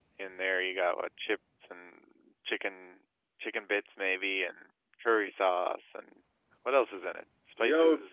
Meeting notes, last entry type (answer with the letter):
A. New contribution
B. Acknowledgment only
A